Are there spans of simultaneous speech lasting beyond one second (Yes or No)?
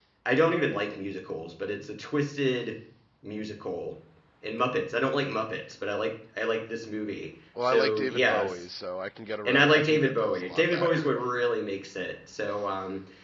Yes